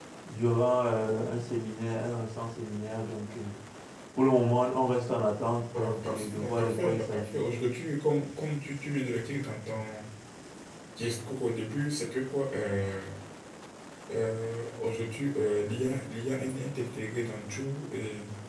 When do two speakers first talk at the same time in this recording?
5.7 s

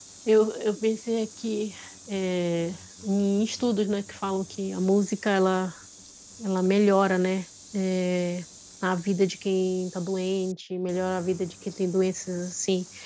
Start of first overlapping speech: none

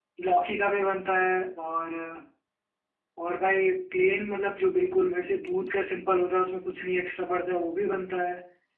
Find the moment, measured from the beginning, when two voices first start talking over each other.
none

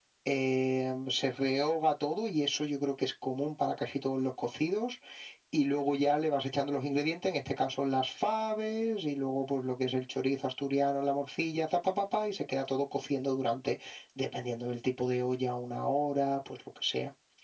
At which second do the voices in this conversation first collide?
none

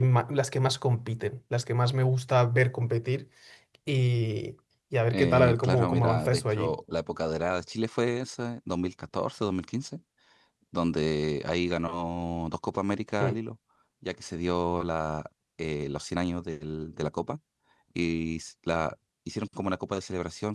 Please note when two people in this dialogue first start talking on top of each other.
5.1 s

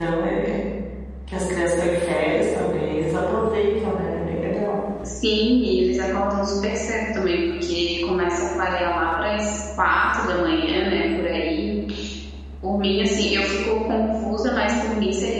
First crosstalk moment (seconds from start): none

